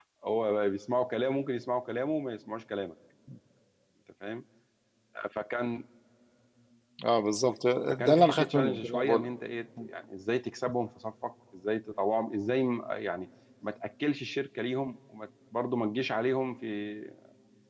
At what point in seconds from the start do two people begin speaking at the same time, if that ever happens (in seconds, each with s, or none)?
7.9 s